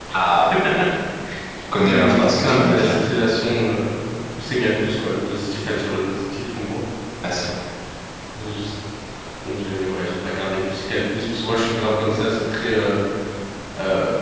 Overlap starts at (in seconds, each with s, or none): 1.8 s